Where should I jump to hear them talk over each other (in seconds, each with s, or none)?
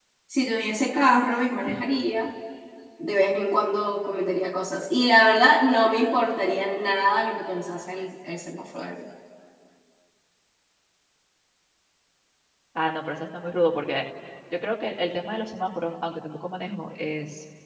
none